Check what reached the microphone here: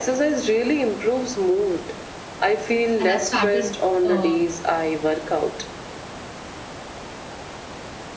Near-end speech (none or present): present